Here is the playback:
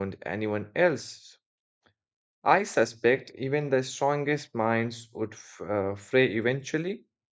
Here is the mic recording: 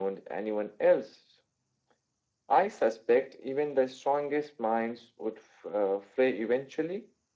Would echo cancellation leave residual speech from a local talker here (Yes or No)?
No